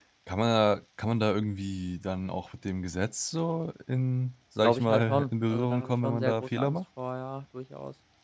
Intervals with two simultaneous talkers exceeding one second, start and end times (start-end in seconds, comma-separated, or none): 4.6-6.8